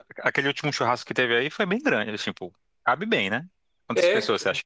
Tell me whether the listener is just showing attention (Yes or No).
No